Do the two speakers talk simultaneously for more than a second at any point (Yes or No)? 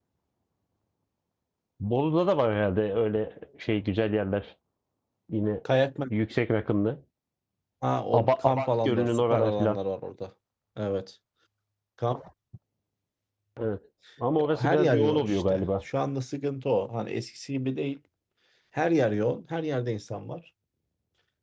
Yes